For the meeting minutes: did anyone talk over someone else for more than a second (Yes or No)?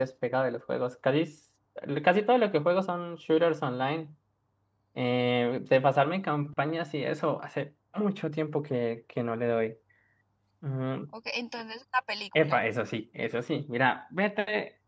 No